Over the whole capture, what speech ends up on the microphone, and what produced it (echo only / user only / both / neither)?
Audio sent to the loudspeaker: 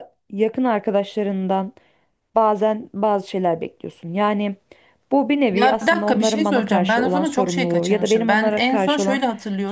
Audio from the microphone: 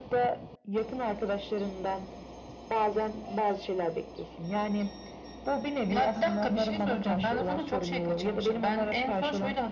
echo only